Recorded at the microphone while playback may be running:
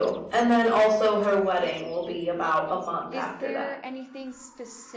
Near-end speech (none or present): present